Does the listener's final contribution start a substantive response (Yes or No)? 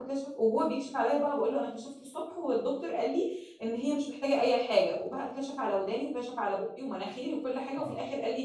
No